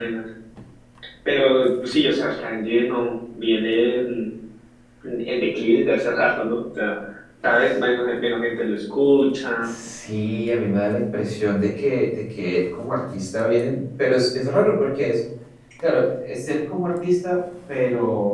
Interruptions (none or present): none